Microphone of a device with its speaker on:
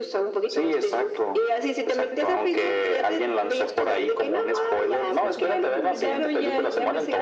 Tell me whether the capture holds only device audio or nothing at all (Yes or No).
No